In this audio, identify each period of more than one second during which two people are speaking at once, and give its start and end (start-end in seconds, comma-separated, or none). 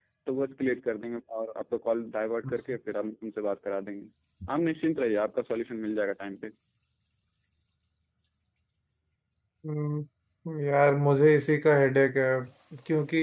none